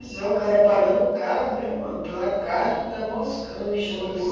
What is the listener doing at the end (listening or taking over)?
taking over